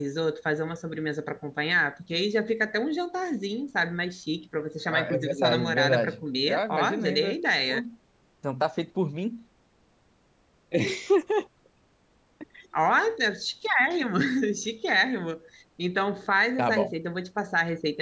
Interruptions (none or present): present